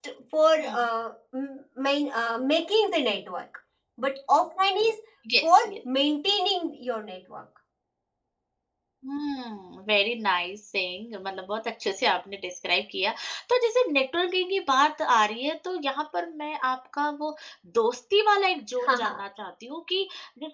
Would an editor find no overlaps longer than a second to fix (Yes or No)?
Yes